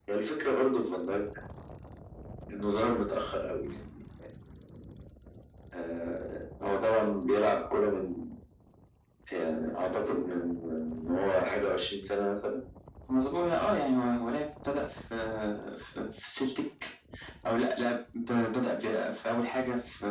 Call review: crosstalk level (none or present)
none